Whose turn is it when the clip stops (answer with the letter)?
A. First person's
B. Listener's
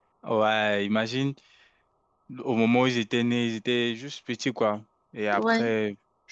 A